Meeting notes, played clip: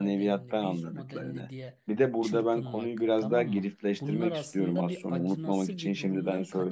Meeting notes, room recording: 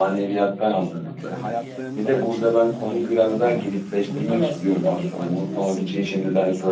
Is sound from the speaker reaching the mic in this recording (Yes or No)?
Yes